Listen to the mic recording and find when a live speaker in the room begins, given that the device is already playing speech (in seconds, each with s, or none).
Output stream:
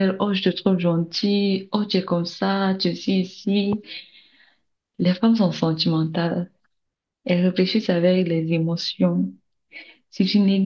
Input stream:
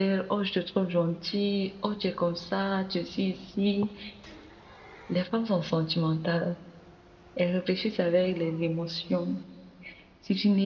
none